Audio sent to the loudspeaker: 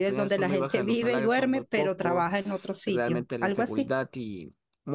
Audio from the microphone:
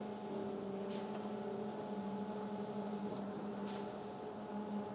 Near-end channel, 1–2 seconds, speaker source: neither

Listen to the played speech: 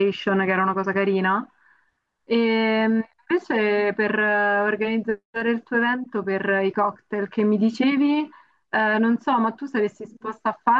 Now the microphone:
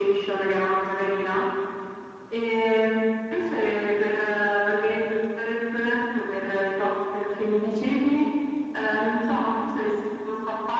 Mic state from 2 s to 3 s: echo only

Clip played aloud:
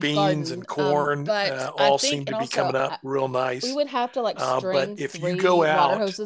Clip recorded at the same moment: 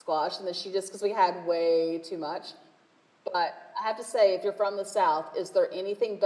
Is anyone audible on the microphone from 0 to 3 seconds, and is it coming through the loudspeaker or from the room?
user only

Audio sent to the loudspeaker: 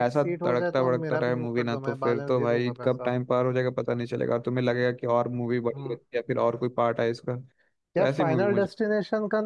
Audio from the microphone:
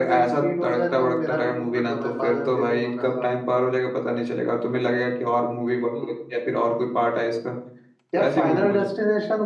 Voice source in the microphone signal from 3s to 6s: echo only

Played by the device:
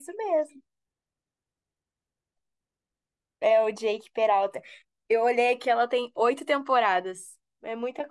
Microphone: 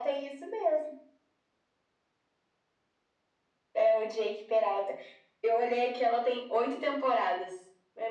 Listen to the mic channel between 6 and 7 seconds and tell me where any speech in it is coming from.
echo only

